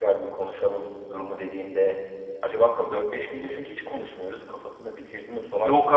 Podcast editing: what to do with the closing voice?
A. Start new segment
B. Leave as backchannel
A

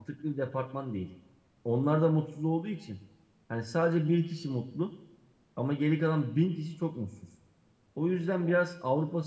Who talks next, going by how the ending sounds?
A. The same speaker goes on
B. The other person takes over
A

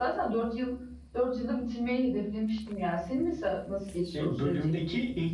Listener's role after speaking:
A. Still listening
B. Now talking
B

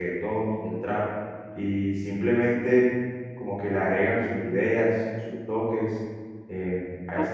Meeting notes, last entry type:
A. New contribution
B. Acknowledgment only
A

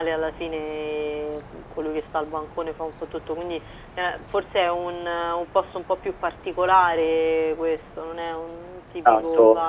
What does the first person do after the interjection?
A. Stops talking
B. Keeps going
A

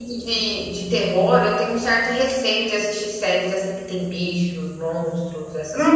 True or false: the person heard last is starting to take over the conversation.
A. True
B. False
A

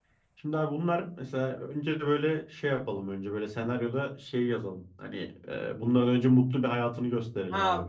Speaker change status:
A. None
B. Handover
B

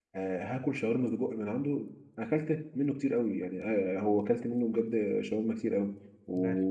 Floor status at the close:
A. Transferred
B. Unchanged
B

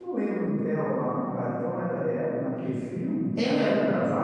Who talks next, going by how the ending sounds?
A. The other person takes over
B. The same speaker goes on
B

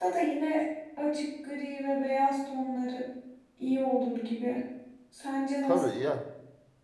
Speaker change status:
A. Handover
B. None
A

